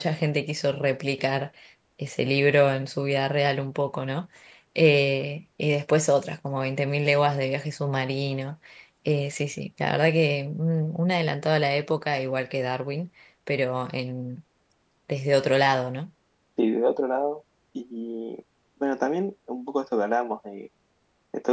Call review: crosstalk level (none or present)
none